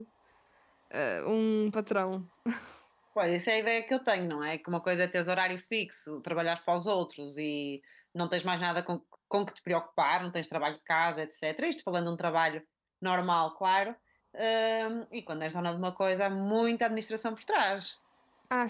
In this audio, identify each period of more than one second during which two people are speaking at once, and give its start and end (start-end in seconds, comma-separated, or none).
none